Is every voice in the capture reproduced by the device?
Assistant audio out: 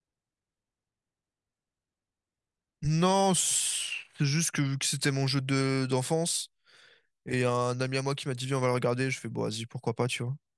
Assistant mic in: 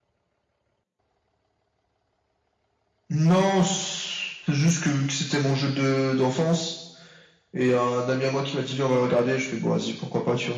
Yes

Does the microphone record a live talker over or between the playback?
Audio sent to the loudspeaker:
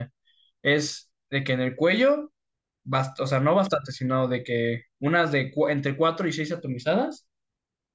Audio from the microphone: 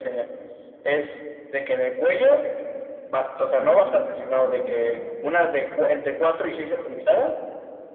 Yes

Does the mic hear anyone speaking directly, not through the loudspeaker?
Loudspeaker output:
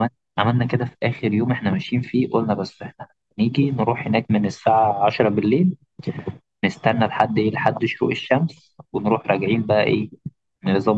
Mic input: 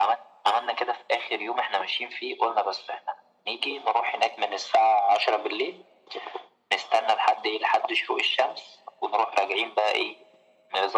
No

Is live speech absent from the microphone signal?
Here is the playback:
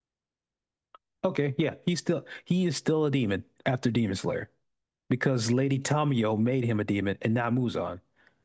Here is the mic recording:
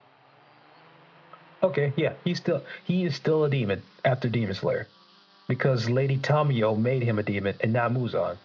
Yes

